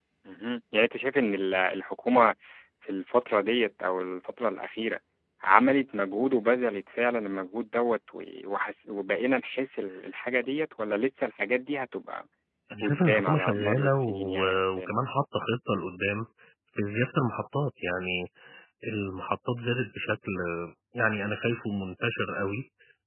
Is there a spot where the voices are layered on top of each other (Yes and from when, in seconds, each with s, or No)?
Yes, from 12.8 s